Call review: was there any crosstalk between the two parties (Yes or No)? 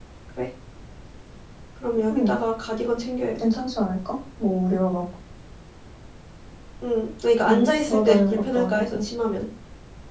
Yes